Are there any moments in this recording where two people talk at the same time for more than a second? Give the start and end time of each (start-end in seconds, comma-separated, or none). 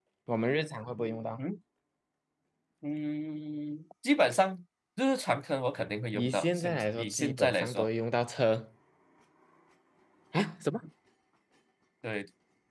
6.2-7.9